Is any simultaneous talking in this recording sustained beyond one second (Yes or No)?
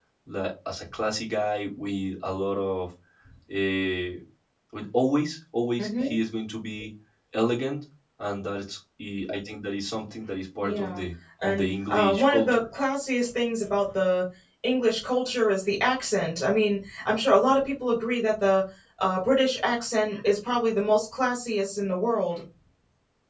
Yes